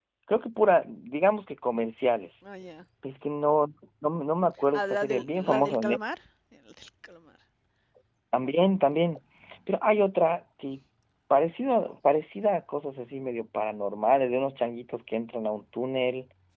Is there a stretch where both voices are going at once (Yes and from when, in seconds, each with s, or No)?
Yes, from 4.7 s